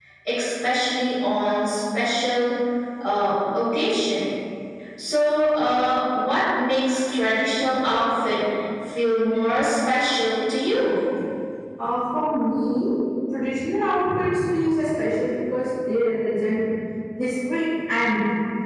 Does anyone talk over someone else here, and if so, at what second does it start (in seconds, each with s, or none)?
none